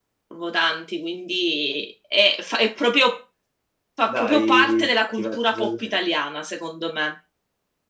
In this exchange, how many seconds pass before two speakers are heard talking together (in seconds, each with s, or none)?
4.0 s